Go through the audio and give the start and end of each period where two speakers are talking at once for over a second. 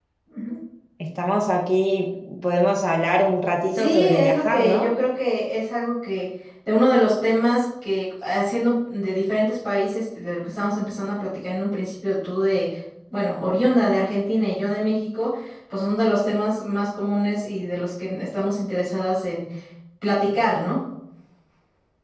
3.7-4.9

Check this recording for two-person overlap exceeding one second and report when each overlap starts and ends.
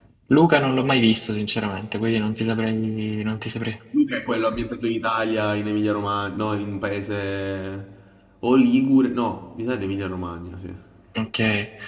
none

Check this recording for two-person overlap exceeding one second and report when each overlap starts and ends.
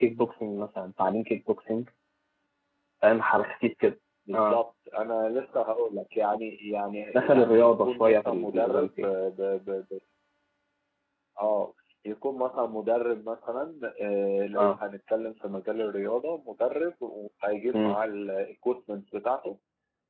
7.1-9.1

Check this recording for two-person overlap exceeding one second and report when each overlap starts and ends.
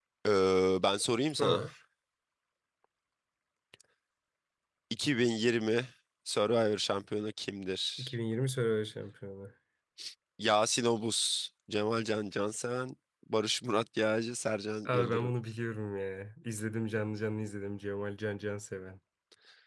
none

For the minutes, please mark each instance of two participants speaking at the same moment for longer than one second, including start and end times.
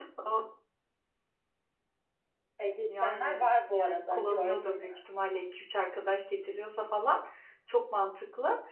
2.9-4.9

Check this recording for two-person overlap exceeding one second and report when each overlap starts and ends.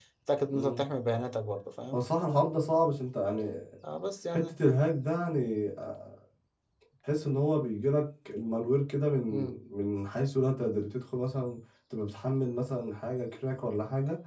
none

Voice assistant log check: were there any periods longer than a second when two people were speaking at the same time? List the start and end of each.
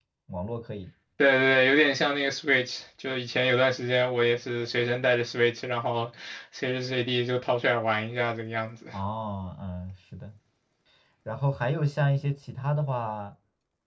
none

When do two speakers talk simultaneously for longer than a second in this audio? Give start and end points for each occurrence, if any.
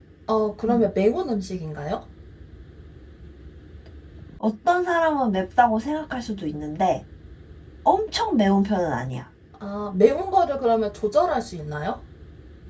none

